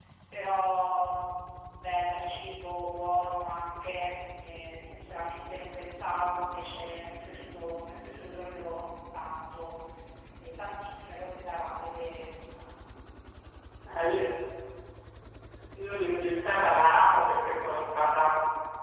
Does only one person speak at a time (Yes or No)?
Yes